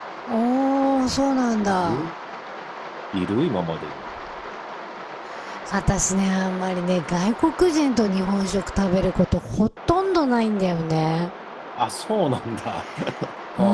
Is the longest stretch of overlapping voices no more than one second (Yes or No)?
Yes